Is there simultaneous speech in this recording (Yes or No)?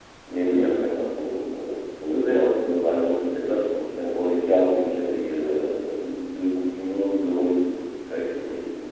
No